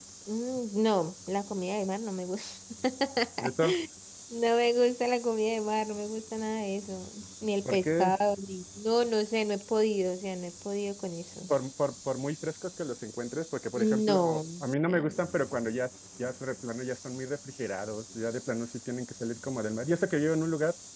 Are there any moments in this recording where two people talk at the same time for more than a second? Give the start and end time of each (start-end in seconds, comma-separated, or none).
13.8-15.1